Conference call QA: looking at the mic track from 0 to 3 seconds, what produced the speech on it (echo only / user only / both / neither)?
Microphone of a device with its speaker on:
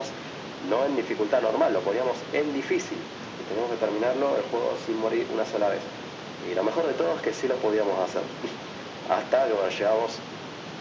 echo only